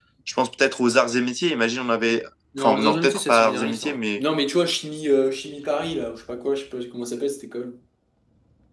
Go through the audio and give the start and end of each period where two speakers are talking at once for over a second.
2.6-4.2

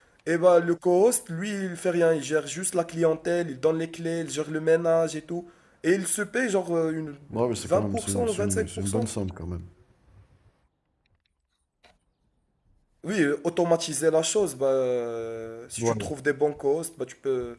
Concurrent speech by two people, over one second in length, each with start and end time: 7.6-9.0

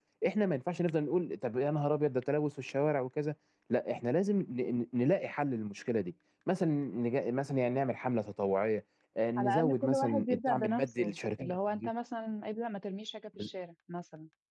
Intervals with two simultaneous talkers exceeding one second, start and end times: 9.4-11.9

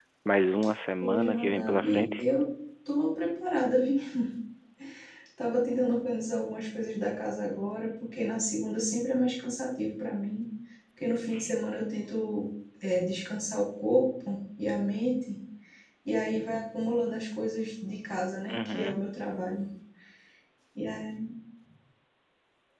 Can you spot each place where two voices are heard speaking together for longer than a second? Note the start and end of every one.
1.0-2.2

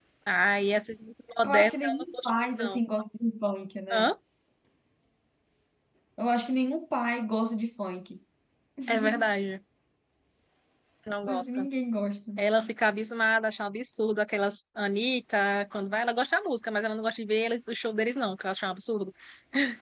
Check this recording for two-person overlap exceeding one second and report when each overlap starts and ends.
1.4-2.8

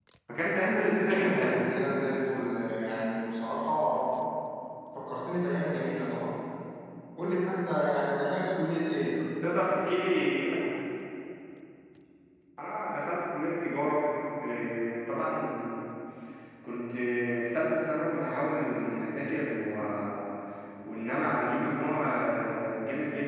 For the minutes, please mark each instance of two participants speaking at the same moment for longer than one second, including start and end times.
none

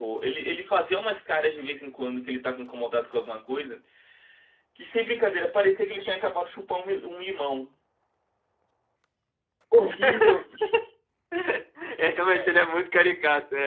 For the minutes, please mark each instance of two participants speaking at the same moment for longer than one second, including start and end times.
none

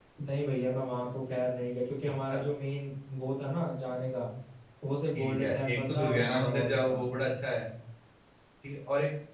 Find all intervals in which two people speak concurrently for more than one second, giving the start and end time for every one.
5.2-7.0

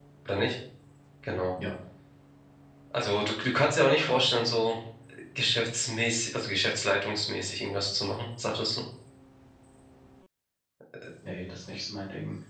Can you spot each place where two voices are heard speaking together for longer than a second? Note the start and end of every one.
none

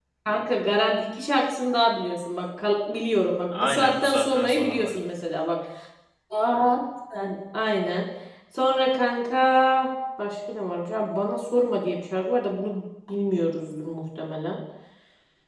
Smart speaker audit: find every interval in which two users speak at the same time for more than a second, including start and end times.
3.5-5.0

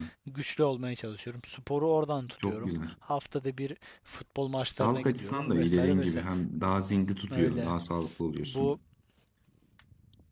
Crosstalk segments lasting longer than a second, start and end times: 4.7-6.2

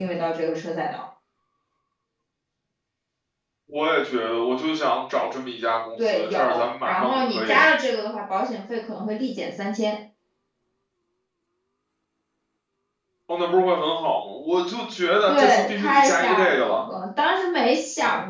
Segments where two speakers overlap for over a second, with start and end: 6.0-7.6, 15.3-16.8

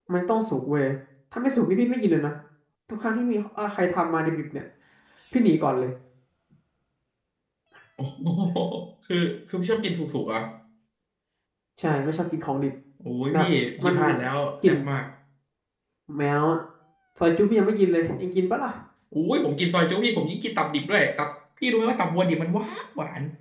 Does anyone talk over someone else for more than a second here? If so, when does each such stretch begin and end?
none

